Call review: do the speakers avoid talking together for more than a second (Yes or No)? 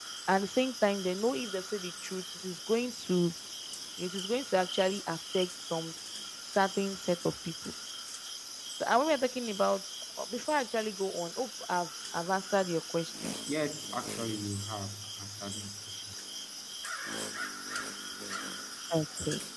Yes